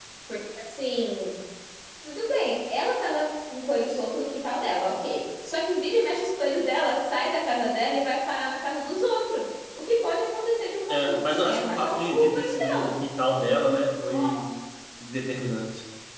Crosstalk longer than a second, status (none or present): present